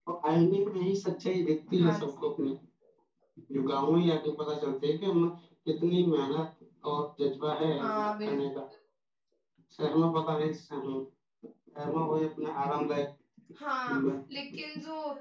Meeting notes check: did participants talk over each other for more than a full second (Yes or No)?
No